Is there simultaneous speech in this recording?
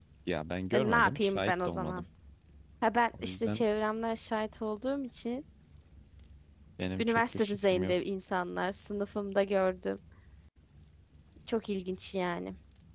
Yes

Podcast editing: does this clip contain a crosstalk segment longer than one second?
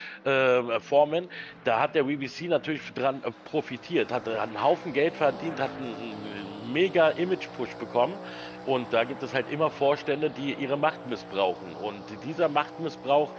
No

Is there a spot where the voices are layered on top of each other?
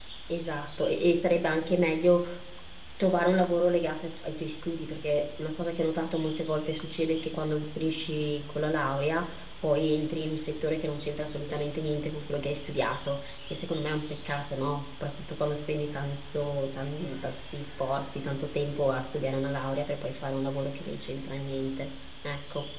No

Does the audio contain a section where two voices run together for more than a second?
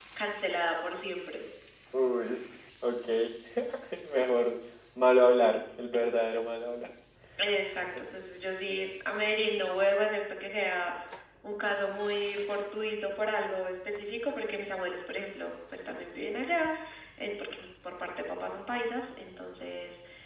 No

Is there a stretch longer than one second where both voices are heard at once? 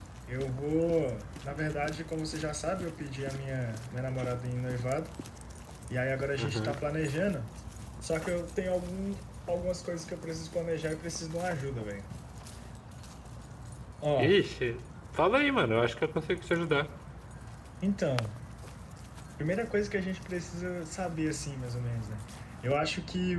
No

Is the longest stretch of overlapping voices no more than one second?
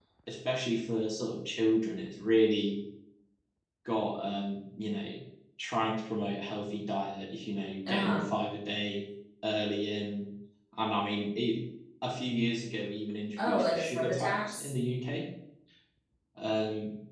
No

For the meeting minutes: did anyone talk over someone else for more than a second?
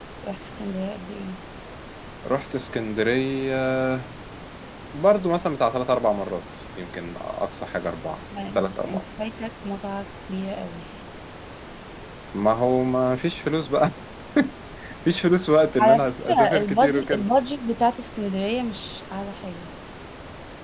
Yes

